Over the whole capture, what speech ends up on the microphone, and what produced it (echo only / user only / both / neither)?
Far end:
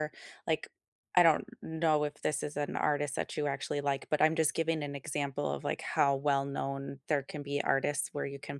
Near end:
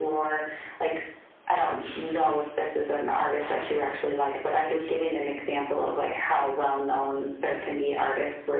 echo only